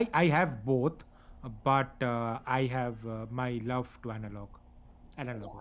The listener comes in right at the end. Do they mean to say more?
Yes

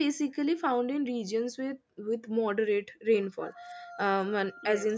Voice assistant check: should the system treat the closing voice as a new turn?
No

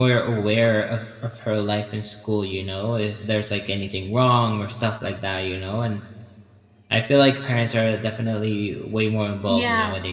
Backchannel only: No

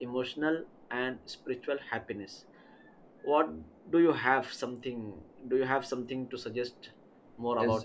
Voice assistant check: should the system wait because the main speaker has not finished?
No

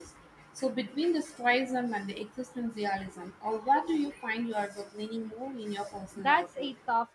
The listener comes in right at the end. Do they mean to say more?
Yes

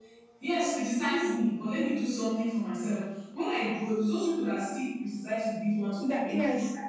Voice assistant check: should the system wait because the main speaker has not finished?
No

